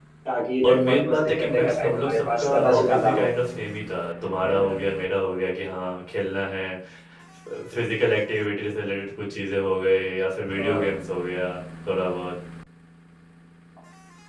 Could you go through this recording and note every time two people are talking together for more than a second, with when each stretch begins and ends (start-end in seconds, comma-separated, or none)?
0.6-3.3